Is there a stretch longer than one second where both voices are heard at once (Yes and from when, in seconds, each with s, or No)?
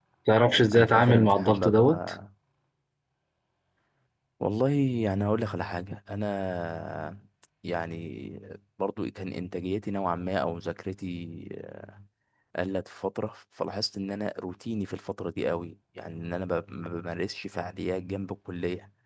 Yes, from 0.8 s